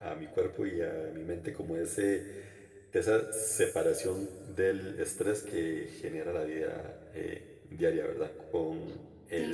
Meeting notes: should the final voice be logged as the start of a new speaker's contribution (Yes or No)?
Yes